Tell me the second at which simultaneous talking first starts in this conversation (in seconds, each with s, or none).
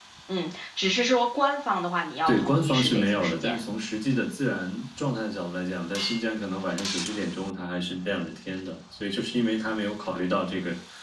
2.3 s